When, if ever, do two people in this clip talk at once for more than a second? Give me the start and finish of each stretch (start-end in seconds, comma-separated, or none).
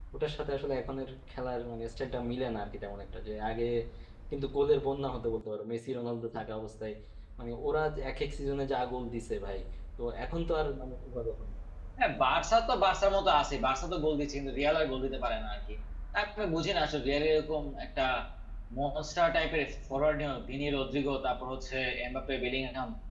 none